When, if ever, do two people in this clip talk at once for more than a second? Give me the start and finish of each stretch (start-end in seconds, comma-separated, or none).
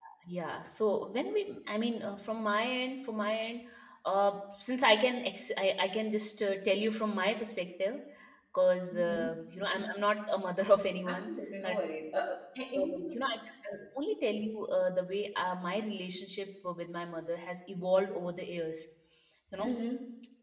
none